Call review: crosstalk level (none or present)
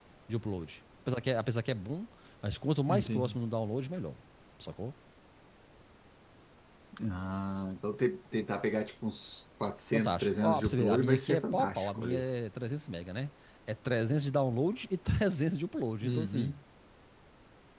present